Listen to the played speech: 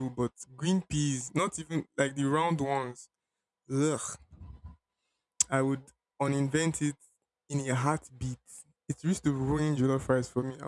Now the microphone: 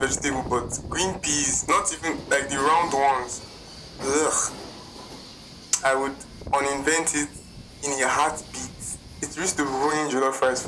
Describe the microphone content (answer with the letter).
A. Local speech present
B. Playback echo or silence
B